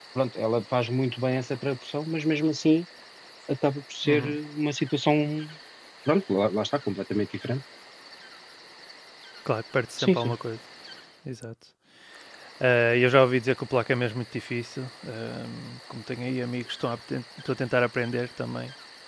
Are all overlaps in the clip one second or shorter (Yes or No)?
Yes